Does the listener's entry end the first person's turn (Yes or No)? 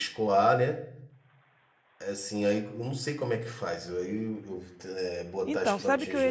Yes